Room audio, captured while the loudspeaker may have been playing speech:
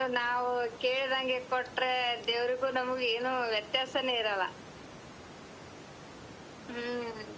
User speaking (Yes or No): No